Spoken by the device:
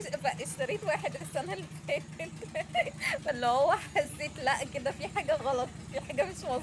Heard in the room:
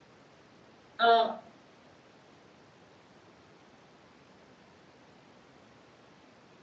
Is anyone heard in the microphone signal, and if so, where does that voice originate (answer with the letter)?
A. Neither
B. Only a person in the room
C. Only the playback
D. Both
B